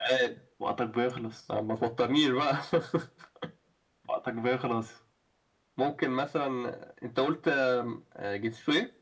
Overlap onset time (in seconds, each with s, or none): none